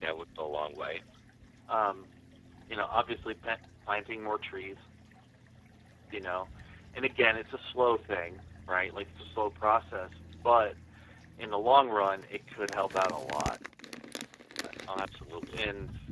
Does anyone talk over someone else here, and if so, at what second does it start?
none

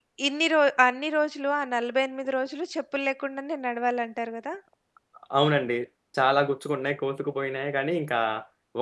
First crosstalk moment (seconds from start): none

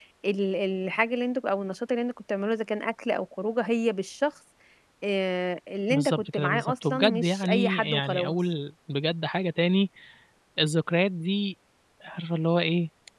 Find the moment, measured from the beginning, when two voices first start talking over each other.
5.9 s

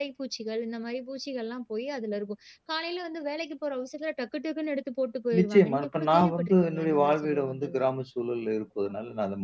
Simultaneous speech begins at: 5.3 s

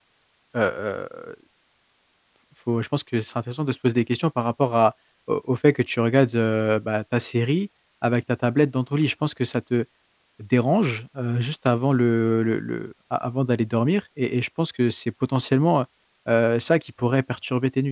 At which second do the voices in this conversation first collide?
none

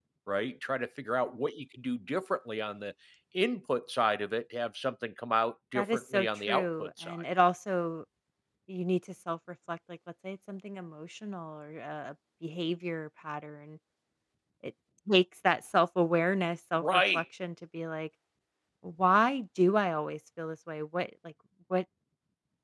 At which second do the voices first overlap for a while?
5.8 s

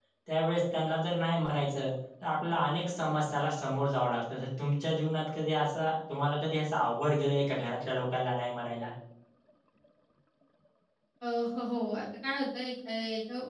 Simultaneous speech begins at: none

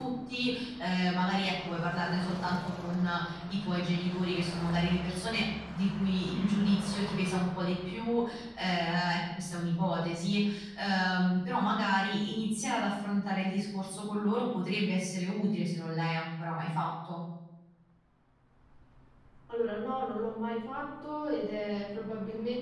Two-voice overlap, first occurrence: none

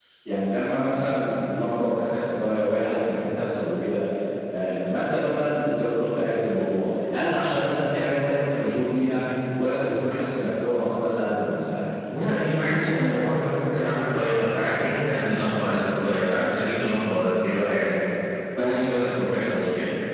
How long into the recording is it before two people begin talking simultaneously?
12.1 s

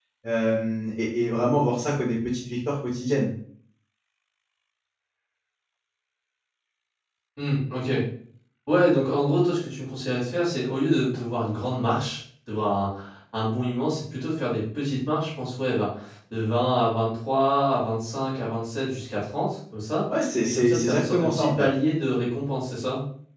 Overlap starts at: 20.5 s

